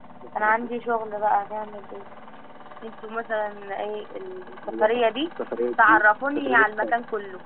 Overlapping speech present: Yes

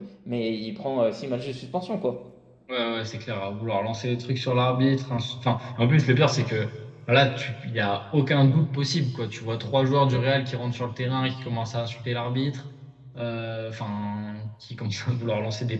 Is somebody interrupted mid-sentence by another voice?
No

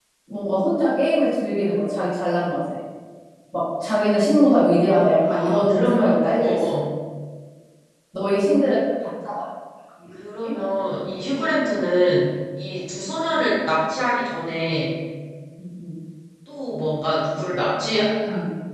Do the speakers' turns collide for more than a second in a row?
Yes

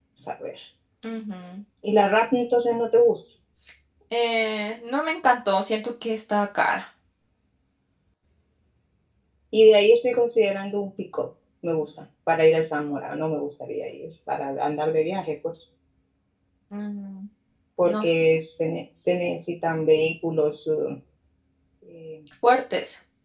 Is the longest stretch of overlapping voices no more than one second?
Yes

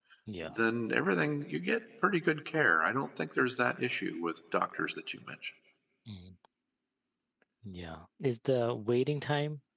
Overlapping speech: No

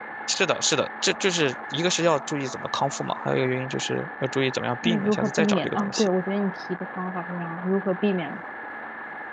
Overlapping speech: Yes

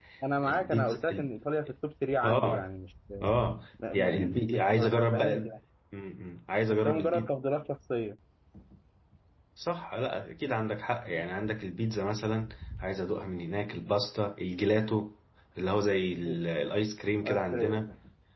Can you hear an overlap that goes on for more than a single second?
Yes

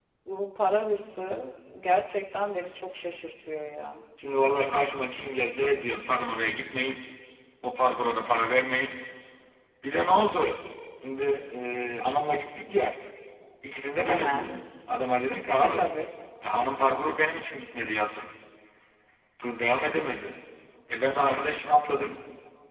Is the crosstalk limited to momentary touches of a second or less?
Yes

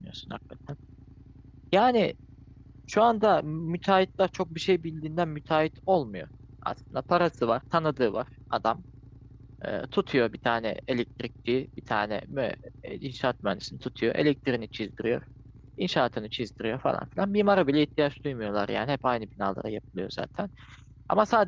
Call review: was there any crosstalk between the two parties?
No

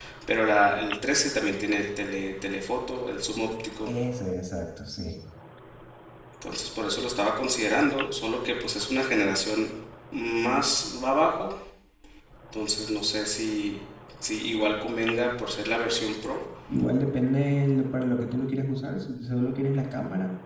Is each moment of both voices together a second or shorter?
Yes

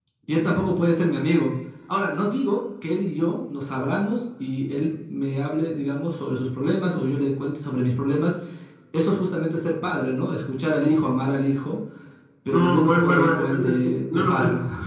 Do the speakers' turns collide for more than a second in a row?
Yes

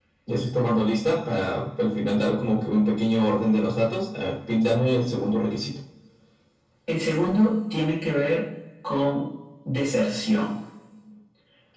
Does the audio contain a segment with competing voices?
No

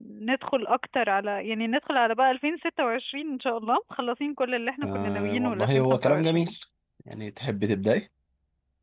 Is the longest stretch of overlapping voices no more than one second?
No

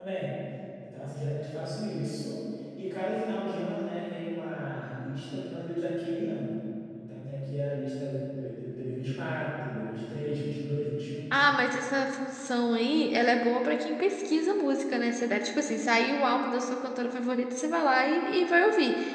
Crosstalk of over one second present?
No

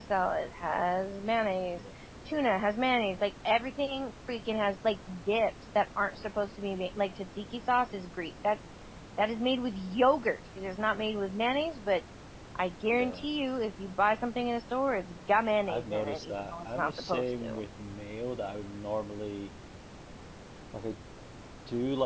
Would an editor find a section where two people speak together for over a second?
Yes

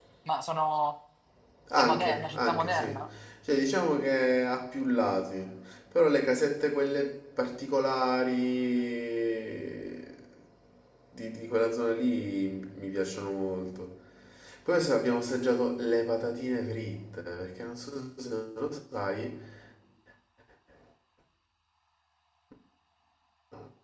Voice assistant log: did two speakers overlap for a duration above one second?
Yes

